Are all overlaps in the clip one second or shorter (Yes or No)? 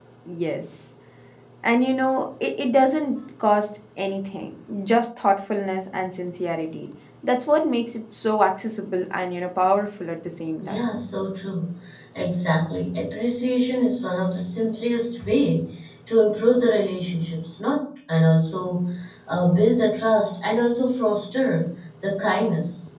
Yes